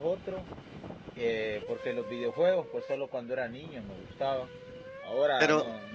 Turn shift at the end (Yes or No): No